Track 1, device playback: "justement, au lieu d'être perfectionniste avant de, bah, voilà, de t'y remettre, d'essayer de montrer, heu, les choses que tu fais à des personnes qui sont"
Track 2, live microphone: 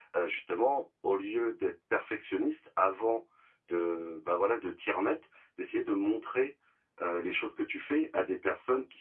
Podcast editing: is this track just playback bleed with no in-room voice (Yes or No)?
Yes